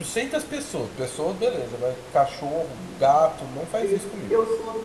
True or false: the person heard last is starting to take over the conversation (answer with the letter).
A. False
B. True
B